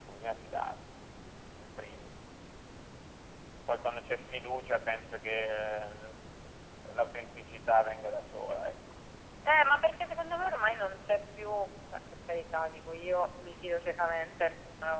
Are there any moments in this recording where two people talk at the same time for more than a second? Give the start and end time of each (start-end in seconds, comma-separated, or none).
none